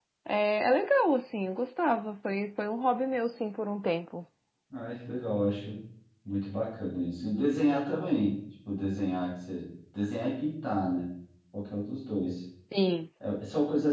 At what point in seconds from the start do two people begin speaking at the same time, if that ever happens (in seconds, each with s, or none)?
none